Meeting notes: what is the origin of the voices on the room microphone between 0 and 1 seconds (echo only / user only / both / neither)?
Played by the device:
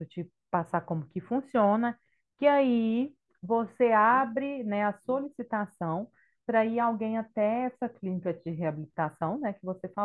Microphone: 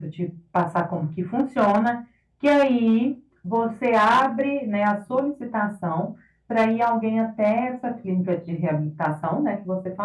echo only